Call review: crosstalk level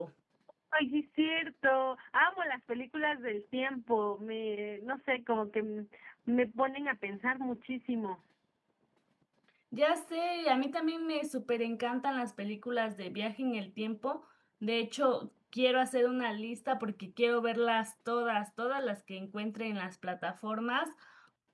none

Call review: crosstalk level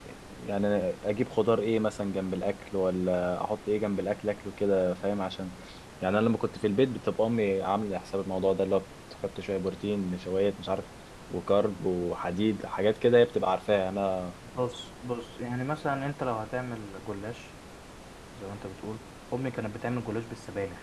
none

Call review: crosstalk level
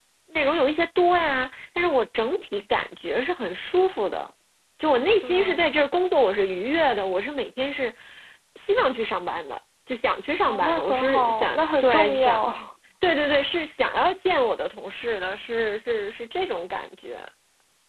present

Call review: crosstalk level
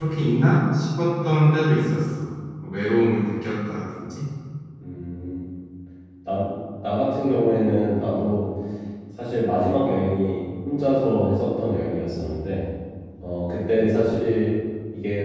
none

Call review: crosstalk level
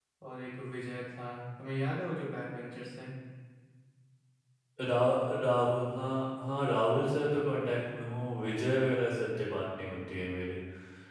none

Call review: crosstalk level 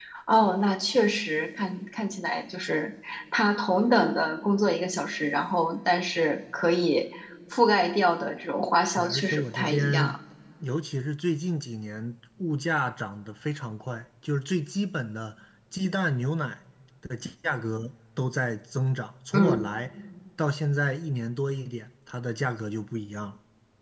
present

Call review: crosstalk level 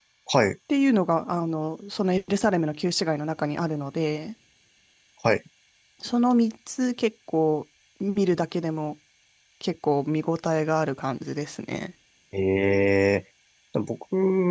none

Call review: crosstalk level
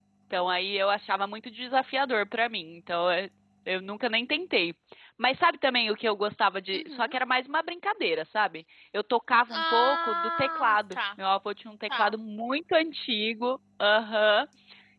present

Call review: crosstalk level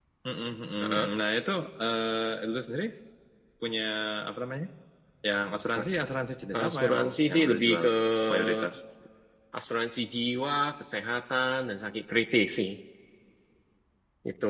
present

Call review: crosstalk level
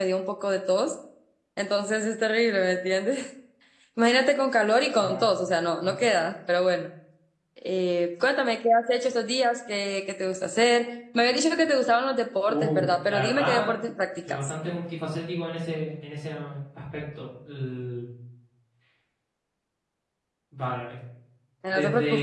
present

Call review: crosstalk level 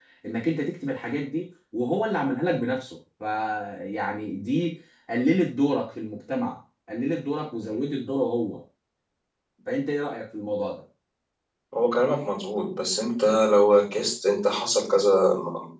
none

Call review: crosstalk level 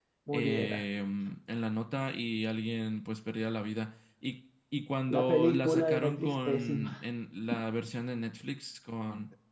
present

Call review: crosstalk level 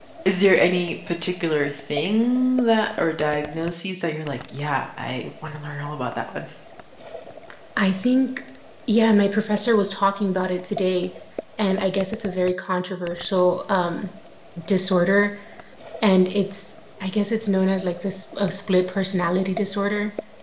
none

